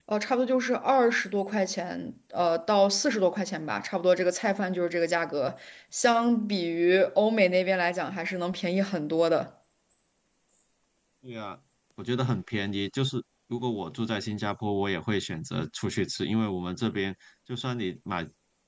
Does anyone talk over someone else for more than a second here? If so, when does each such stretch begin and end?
none

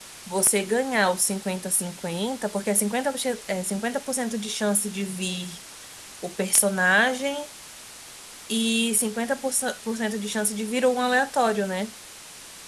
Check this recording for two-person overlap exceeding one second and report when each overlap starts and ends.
none

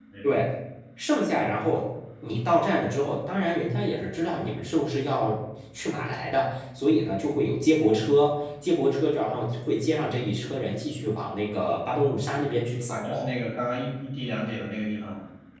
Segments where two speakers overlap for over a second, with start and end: none

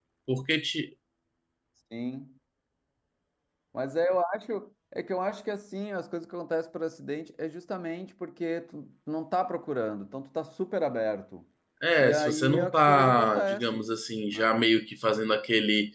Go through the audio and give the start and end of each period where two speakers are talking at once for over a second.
12.0-13.9

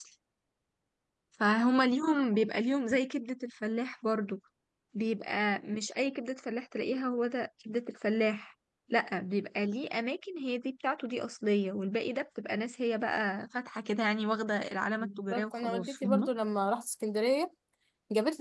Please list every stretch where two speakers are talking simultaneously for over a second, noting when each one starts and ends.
15.0-16.3

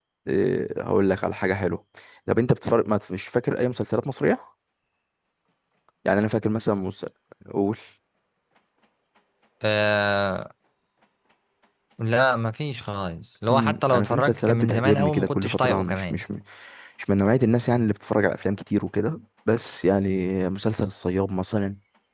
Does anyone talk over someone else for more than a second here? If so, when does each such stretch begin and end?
13.5-16.2

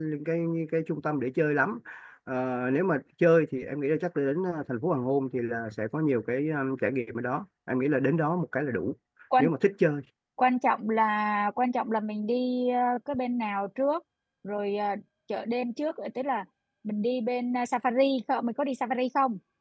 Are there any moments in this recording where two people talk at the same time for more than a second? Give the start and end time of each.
none

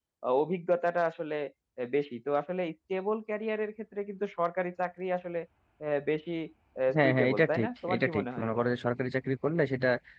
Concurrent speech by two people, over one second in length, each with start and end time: 7.0-8.5

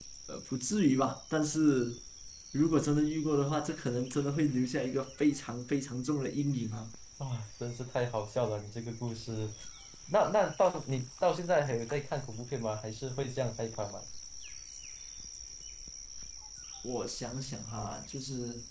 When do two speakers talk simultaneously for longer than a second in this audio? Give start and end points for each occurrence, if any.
none

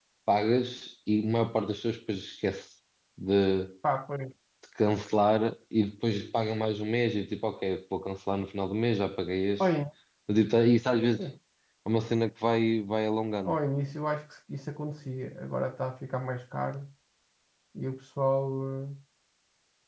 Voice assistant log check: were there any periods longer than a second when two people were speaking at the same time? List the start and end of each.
none

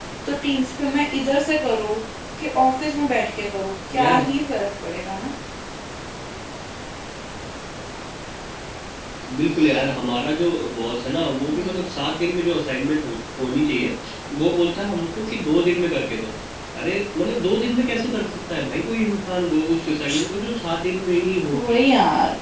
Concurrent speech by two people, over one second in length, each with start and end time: none

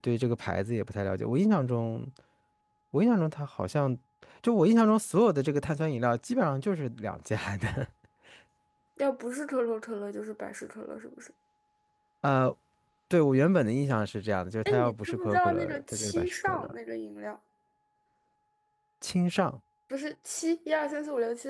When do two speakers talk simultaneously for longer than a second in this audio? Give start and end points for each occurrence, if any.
14.7-16.7

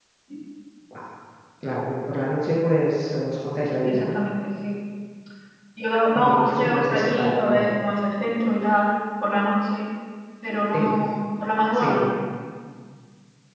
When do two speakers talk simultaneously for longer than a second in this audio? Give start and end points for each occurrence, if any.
6.2-7.8

